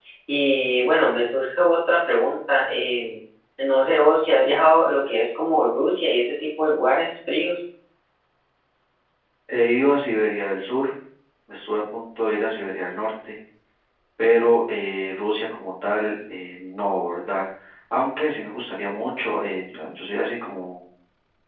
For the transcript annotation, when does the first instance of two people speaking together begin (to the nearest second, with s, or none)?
none